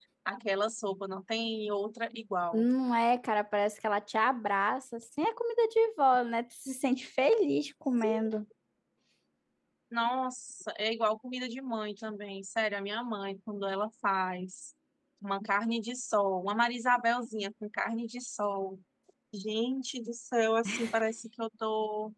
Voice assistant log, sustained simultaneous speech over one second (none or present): none